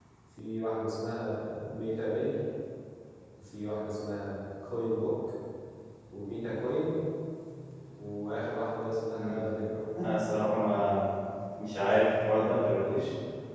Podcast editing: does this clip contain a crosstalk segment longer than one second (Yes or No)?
No